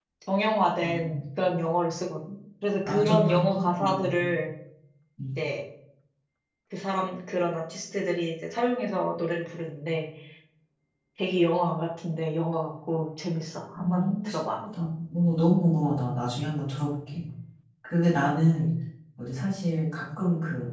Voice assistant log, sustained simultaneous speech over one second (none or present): present